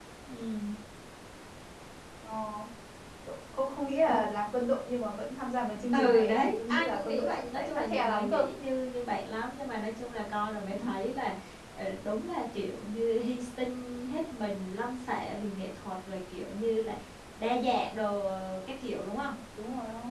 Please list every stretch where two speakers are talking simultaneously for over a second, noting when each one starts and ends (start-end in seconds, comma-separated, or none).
5.9-8.5